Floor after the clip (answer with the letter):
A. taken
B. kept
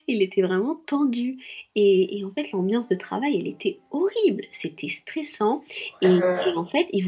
B